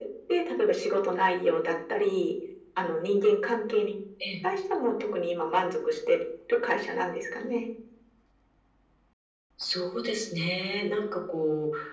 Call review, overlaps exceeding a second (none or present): none